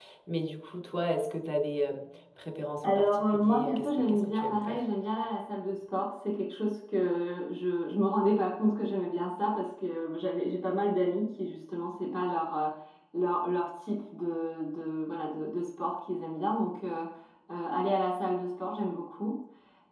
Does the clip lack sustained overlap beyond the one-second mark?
No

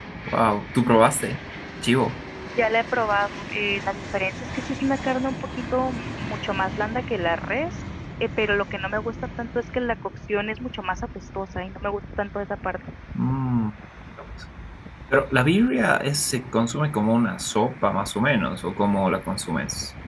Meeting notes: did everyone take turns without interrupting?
Yes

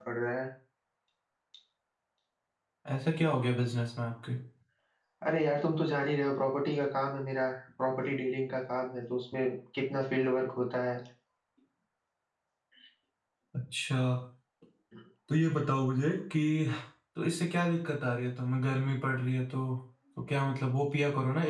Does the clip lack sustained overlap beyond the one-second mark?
Yes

